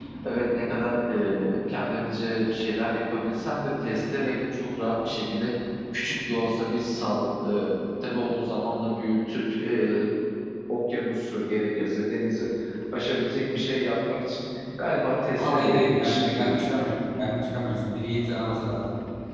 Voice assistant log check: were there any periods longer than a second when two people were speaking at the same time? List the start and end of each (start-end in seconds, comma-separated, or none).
15.4-16.7